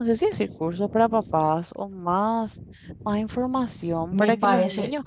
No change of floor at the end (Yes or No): No